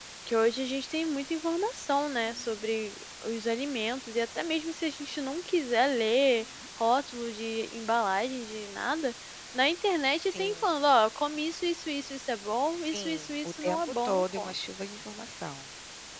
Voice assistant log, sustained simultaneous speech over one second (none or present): present